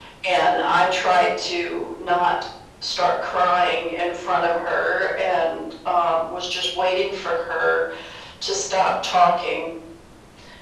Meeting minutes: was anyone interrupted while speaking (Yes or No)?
No